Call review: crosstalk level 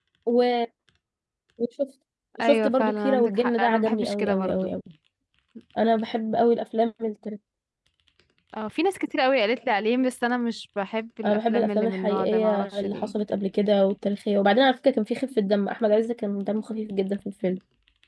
present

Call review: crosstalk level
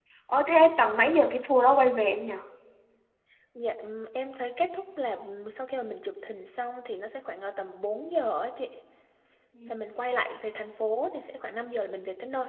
none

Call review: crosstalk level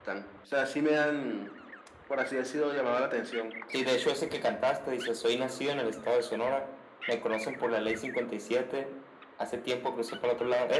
none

